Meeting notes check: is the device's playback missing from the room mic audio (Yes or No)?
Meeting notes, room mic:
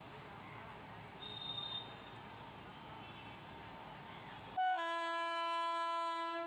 Yes